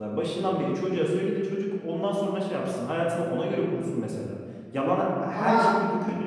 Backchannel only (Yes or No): Yes